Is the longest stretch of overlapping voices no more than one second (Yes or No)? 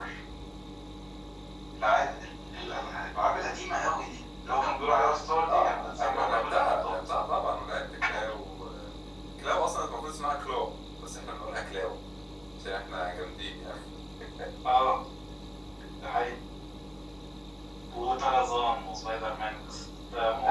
No